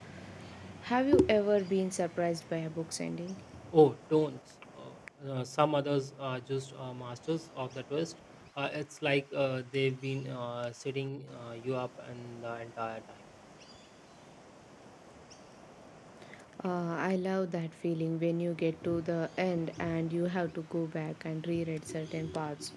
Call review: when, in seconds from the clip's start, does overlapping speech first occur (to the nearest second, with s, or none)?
none